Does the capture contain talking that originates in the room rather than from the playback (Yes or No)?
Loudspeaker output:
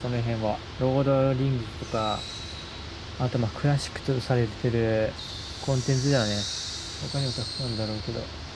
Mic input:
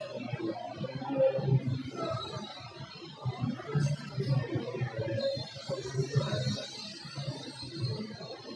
No